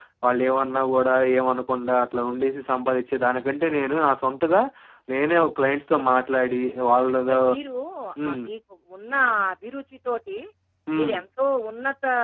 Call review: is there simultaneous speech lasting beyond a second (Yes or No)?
No